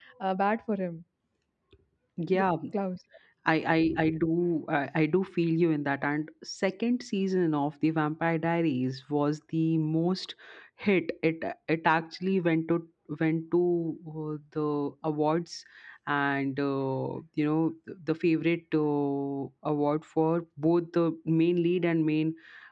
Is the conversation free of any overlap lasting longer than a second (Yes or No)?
Yes